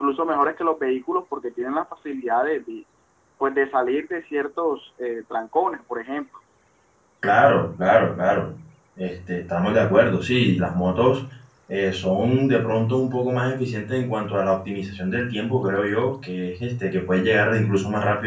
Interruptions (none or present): none